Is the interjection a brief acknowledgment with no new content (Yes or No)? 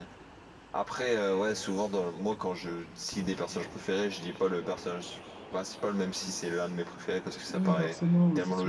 No